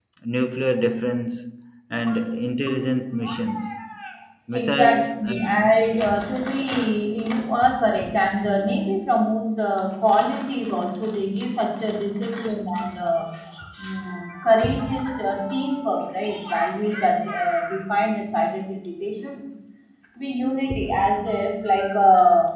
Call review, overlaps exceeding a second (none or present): present